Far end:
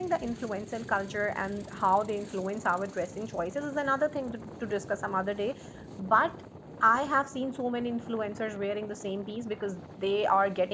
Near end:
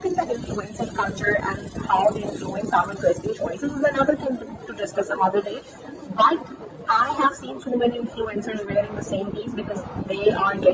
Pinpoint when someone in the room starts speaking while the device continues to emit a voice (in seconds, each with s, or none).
none